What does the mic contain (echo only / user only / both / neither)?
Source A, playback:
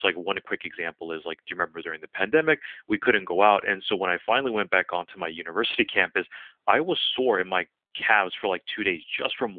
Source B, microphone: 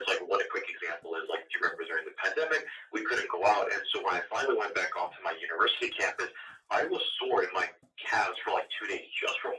echo only